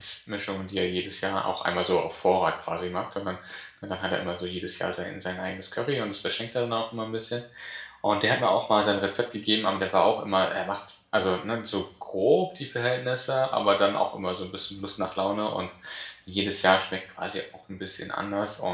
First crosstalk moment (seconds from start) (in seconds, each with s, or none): none